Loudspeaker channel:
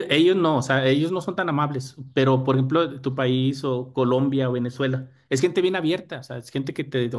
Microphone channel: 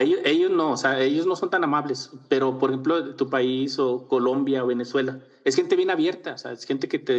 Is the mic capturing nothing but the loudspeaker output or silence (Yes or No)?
Yes